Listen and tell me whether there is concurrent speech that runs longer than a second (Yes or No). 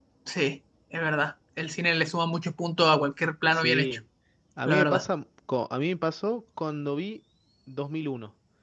No